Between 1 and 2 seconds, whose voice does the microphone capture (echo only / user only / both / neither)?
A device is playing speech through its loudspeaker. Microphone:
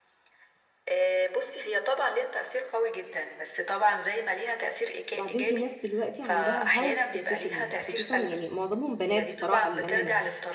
echo only